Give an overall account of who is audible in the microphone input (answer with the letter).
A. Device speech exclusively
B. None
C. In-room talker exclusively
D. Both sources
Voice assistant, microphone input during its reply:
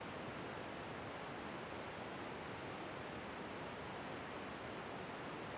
B